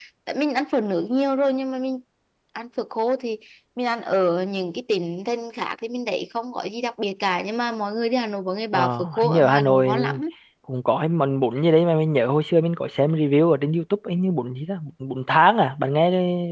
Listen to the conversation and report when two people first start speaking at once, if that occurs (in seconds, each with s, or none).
8.7 s